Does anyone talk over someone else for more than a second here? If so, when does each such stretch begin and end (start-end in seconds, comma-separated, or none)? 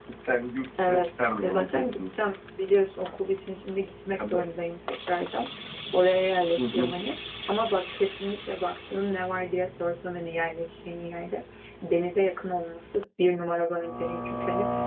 0.8-2.0